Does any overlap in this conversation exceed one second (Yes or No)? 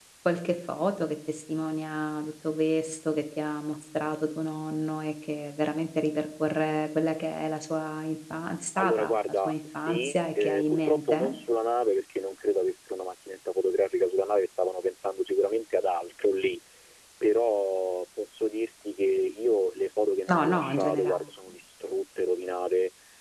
Yes